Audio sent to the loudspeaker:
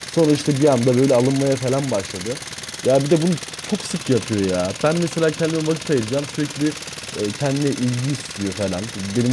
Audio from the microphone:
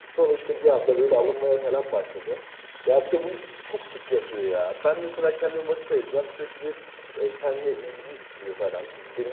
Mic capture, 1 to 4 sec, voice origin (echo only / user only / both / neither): echo only